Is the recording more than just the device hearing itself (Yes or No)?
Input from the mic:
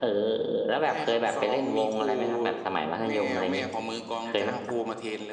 No